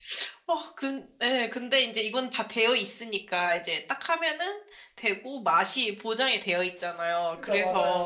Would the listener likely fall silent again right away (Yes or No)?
Yes